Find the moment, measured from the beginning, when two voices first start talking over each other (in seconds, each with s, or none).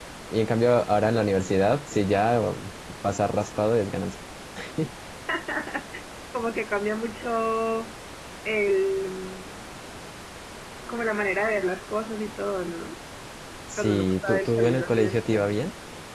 13.7 s